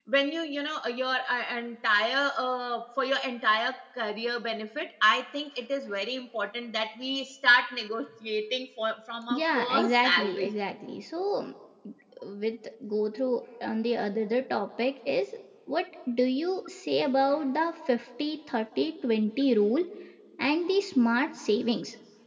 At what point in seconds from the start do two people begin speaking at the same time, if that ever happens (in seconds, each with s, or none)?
9.3 s